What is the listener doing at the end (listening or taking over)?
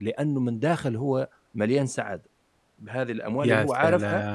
listening